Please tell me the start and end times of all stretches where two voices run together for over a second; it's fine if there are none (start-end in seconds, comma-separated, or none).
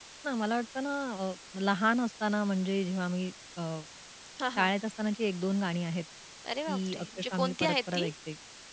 6.7-8.1